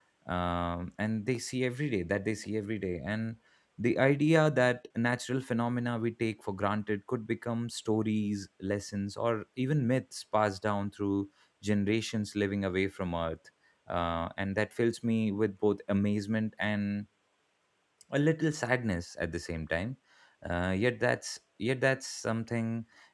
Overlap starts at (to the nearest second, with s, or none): none